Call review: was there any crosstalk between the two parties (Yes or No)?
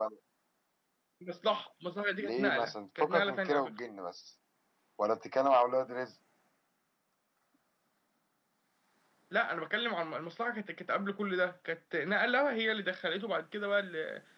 Yes